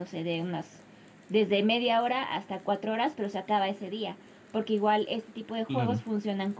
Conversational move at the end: listening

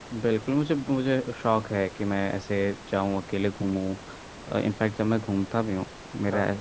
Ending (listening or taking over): listening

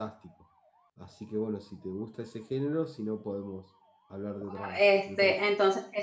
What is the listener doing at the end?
taking over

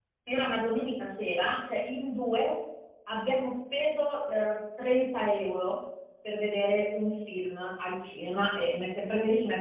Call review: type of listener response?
listening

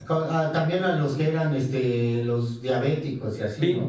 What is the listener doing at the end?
taking over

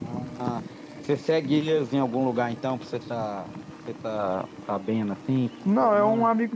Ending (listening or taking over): taking over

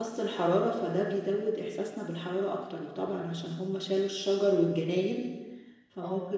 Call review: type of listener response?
listening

